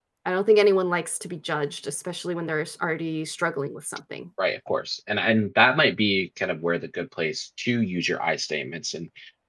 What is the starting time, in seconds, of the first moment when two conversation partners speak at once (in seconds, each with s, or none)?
none